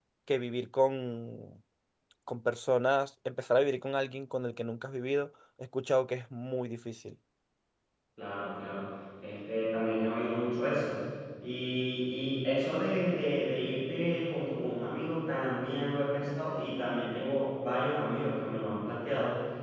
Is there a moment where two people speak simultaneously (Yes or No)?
No